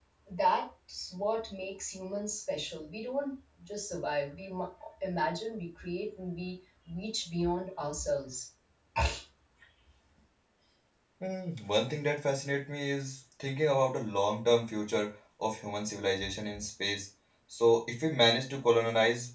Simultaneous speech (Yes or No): No